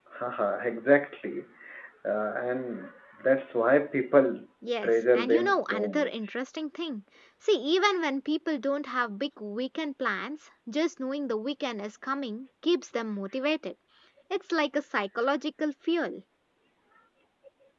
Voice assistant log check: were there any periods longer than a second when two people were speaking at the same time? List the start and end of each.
4.8-6.3

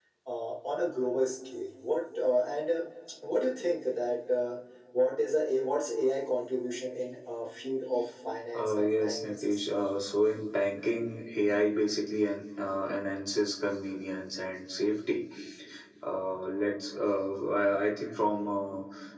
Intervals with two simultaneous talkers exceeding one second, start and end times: 8.5-9.8

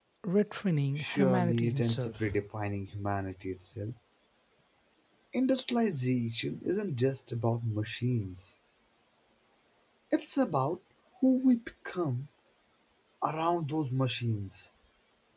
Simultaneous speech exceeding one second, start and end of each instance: 1.0-2.2

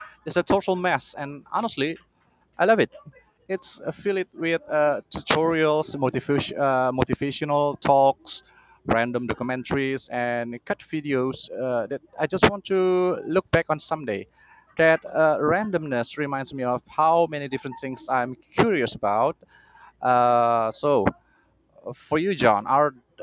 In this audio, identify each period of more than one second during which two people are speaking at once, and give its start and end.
none

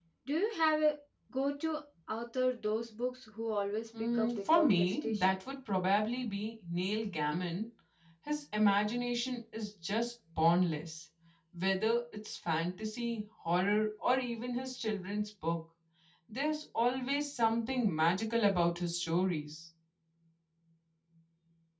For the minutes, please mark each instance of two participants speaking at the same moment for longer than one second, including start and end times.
4.0-5.4

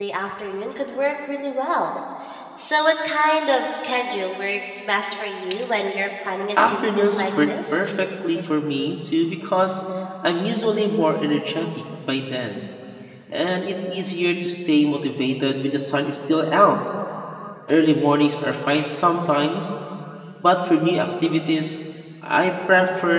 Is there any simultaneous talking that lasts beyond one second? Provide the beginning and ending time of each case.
6.7-7.9

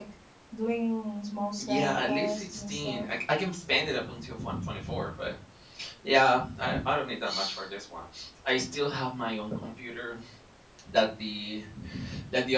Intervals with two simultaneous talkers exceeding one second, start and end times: 1.6-3.0

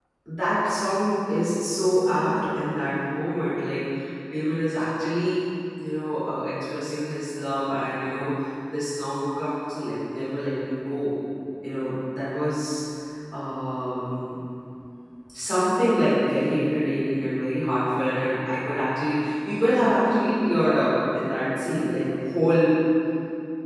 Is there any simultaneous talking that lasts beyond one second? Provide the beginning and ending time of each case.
19.7-20.9

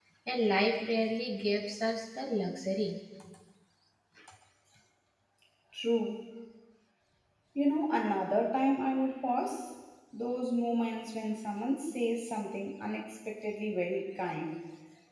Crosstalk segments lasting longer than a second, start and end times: none

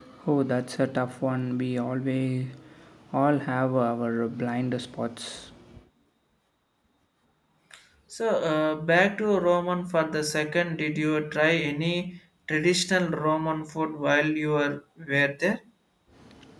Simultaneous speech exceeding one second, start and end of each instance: none

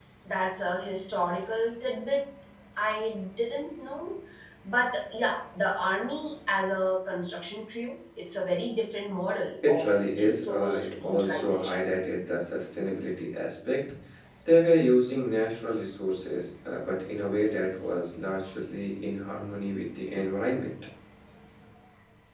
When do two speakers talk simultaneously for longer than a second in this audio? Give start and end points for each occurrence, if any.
9.7-11.8

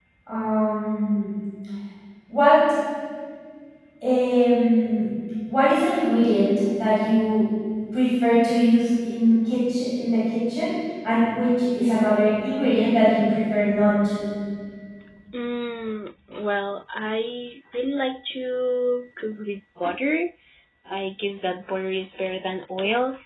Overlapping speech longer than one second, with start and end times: none

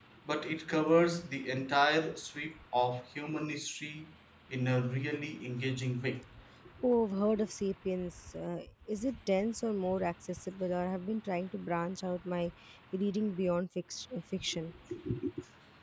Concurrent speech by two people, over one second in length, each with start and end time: none

